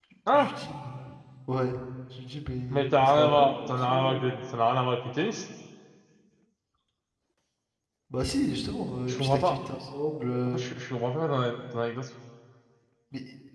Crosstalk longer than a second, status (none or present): present